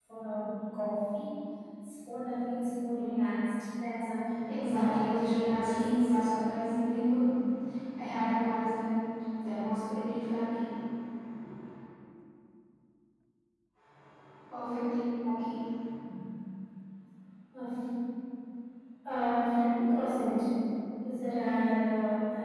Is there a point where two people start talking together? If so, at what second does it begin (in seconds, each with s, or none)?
4.5 s